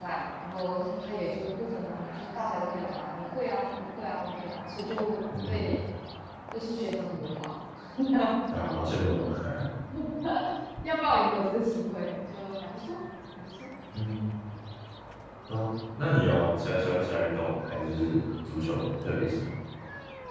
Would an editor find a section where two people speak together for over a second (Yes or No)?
No